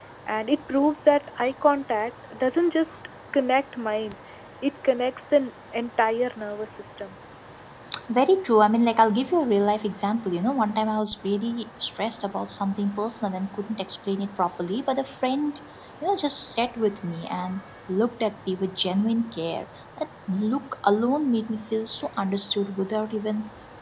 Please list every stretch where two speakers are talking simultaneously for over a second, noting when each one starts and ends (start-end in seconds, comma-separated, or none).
none